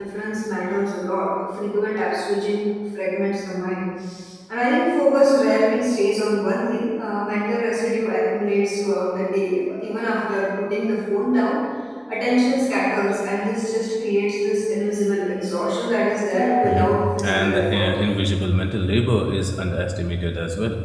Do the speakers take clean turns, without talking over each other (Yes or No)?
No